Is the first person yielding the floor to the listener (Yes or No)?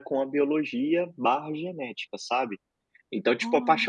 No